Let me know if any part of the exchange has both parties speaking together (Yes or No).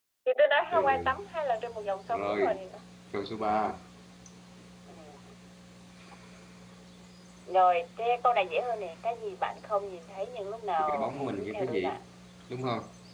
Yes